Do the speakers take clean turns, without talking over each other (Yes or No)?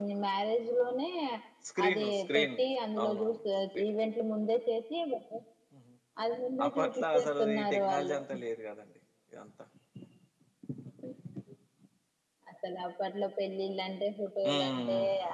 No